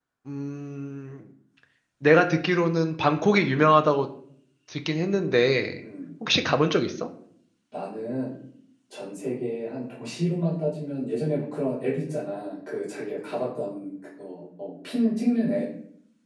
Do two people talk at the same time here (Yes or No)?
No